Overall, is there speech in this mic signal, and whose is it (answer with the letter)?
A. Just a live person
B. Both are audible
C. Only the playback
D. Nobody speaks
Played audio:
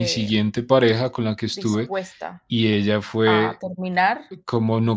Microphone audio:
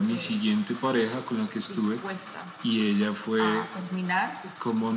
C